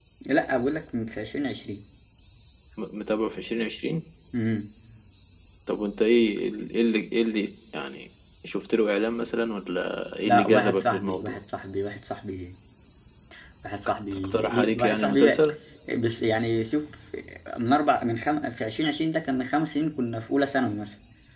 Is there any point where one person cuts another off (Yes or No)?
Yes